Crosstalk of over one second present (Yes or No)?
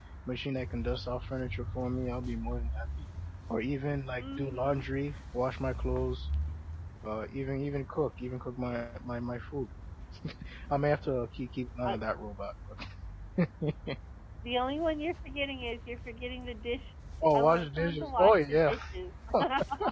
Yes